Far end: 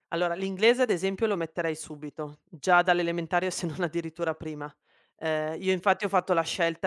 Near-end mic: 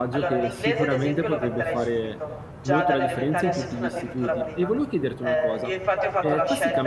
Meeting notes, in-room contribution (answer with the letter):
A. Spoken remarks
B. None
A